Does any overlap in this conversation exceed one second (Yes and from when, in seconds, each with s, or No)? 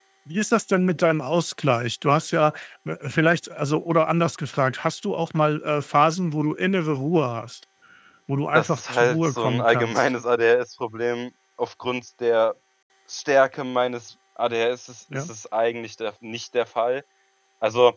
Yes, from 8.6 s